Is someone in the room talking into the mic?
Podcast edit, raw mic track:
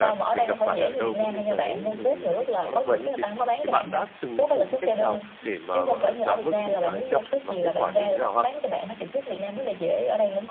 Yes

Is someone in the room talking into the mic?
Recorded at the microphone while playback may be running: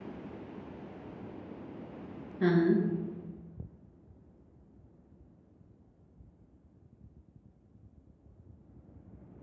Yes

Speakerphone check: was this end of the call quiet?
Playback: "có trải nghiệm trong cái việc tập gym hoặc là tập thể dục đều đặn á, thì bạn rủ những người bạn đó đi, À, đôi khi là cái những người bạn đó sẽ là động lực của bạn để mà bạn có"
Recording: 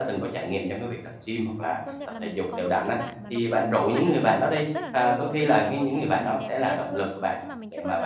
No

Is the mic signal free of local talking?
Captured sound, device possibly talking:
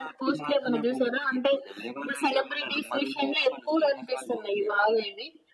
Yes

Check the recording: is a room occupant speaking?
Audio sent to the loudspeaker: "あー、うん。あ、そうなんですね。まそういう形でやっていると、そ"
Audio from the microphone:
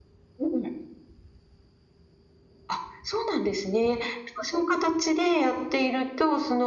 No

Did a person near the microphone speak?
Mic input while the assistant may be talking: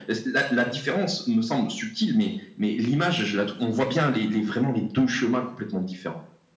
No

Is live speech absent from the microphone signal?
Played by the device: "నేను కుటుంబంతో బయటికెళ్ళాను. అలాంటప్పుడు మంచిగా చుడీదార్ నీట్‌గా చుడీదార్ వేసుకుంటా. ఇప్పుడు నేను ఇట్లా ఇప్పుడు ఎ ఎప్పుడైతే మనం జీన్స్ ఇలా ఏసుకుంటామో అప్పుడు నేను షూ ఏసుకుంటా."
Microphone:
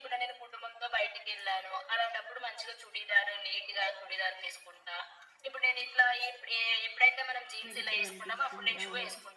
No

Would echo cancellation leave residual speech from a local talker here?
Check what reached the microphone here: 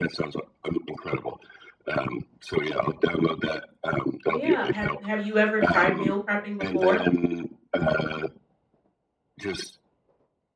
Yes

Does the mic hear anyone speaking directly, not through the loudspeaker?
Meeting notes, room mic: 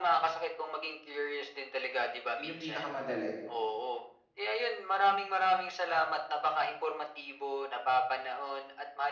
Yes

